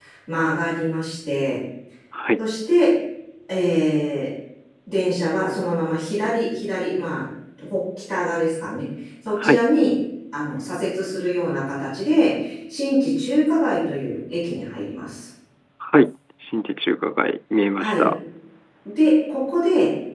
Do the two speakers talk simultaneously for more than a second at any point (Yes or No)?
No